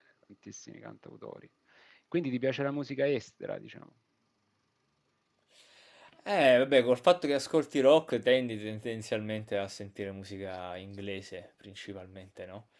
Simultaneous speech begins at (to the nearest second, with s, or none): none